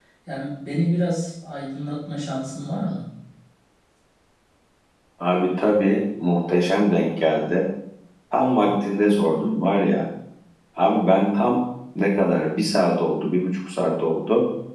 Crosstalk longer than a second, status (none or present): none